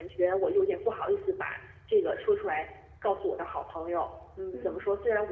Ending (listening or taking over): listening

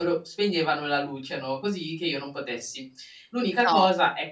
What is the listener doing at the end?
listening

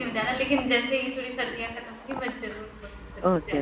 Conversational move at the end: taking over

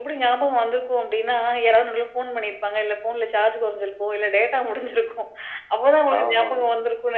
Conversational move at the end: listening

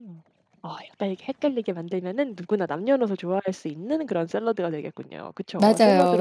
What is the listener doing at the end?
taking over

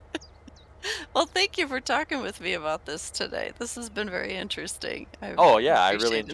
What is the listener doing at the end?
taking over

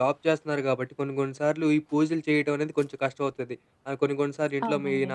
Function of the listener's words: listening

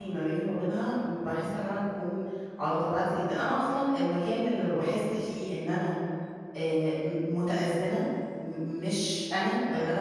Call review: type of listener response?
listening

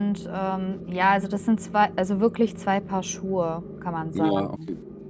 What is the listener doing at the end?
taking over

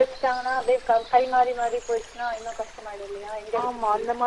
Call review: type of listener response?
taking over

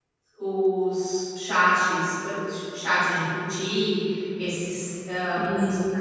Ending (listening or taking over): listening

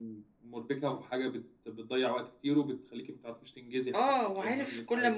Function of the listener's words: taking over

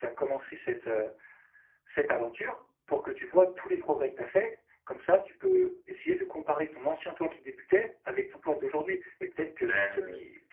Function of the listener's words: listening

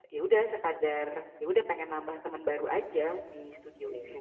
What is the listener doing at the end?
taking over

